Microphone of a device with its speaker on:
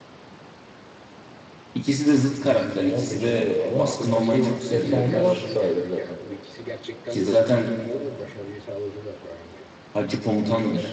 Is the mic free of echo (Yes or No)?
No